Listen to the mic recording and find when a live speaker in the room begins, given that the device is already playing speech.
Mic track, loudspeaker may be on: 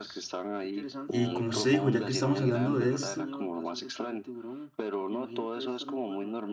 1 s

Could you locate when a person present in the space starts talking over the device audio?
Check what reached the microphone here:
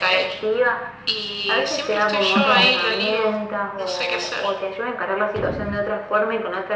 2 s

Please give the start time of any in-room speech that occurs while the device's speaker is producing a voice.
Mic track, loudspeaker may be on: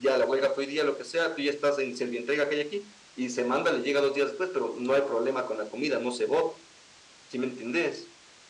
none

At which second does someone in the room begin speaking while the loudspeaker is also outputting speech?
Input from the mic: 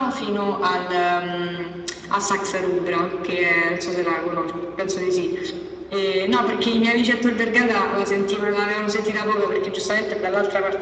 none

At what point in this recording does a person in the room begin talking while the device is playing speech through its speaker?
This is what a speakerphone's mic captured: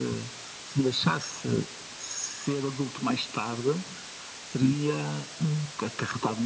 none

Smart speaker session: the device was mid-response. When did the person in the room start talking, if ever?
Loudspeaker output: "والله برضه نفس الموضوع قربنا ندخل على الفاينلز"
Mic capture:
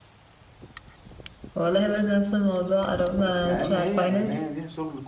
3 s

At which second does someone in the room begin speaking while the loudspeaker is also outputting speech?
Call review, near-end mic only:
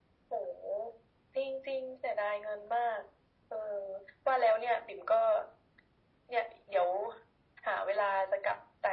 none

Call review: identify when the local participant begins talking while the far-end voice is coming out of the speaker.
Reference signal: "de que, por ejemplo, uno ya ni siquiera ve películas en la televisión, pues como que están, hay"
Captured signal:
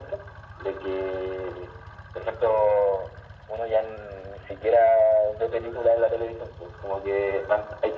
none

